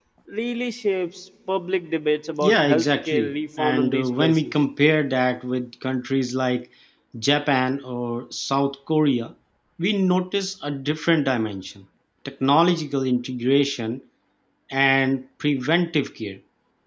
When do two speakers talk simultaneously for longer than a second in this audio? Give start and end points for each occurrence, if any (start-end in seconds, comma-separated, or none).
2.4-4.5